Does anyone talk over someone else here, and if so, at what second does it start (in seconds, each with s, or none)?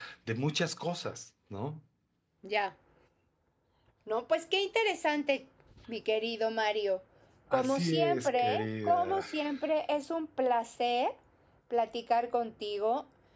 7.5 s